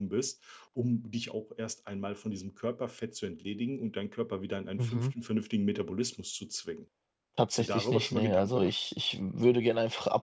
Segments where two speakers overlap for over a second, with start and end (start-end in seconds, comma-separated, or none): 7.5-8.7